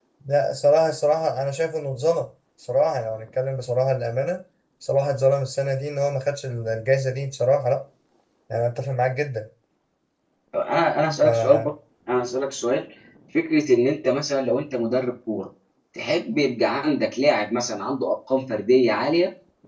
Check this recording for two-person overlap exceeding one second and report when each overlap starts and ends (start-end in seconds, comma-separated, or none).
none